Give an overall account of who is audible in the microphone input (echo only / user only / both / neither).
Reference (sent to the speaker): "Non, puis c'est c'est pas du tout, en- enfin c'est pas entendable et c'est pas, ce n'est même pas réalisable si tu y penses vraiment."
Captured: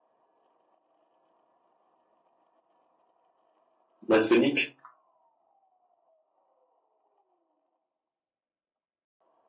user only